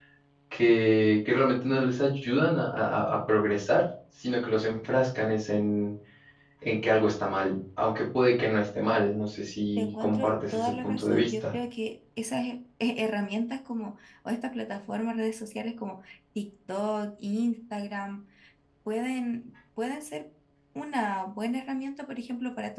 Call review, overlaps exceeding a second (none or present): present